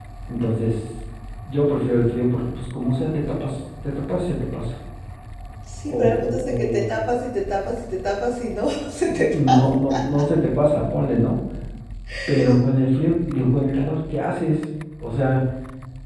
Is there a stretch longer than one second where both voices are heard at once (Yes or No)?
Yes